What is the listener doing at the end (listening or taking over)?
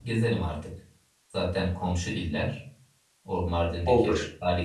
listening